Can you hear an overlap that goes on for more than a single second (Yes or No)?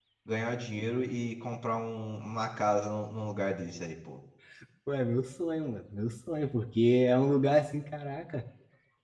No